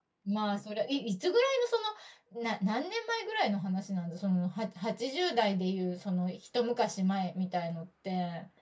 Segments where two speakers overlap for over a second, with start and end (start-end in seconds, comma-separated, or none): none